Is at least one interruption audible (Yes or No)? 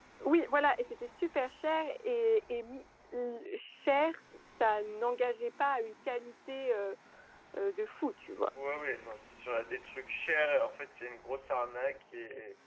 No